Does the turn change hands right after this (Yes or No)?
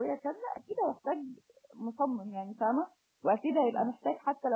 No